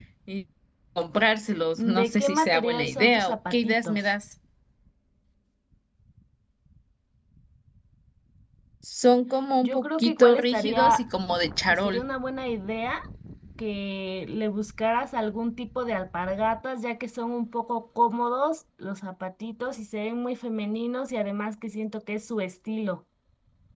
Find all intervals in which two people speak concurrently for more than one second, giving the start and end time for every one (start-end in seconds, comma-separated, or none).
1.8-4.0, 9.6-11.0